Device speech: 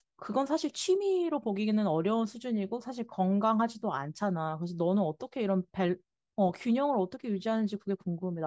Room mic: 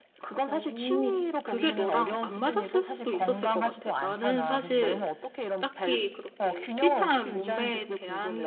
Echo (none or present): present